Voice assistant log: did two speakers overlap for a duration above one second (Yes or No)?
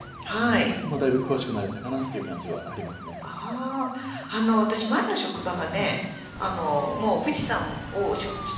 No